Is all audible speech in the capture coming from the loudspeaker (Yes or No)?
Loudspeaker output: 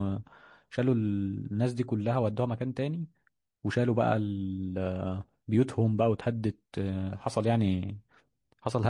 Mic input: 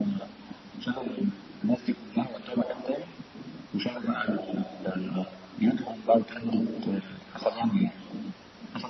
Yes